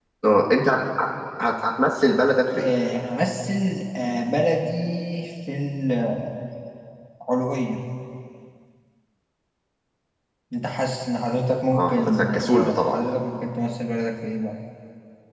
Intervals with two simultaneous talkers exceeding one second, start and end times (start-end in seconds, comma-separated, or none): 11.7-13.0